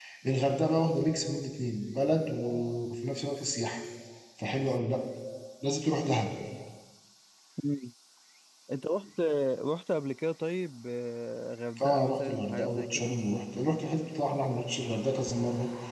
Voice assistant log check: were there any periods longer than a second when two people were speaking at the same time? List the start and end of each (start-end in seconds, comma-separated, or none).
11.8-13.1